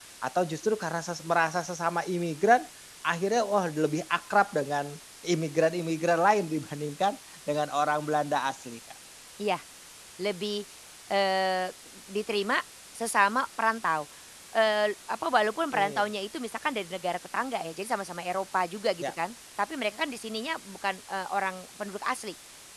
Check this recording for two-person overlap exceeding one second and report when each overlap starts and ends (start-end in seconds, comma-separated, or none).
none